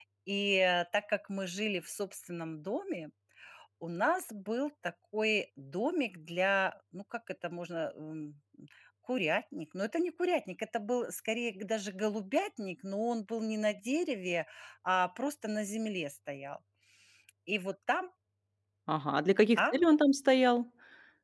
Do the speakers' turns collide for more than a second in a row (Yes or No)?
No